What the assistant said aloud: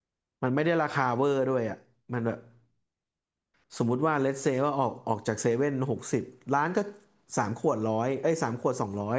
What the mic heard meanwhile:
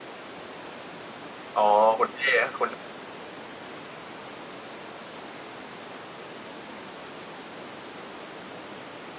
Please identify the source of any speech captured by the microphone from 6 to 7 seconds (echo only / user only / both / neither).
neither